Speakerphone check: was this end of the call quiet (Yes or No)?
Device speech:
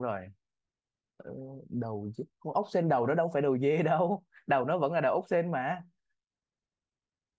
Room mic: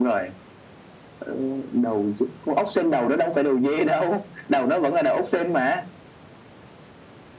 Yes